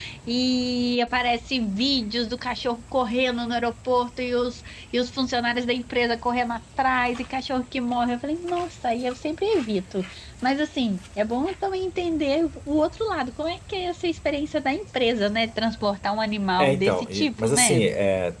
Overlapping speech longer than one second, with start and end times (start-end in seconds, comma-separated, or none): 16.6-17.9